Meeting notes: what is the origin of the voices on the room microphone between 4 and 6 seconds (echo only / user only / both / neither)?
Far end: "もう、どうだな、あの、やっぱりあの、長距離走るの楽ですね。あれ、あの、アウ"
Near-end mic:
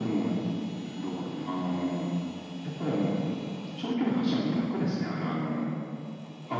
echo only